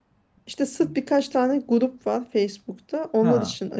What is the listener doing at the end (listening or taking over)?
listening